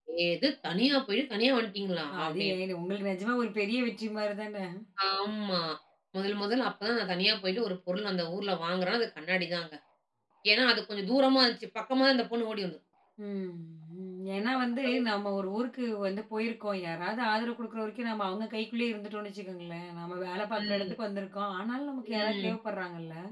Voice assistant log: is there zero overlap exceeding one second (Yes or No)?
Yes